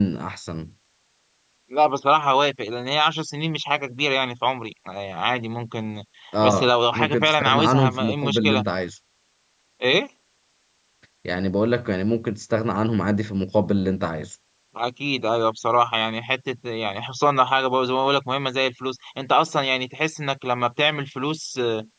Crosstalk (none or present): present